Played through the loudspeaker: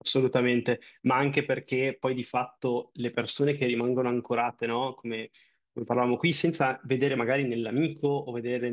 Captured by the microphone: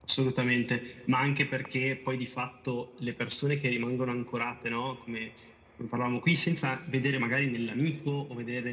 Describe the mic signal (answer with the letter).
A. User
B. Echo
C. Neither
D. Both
B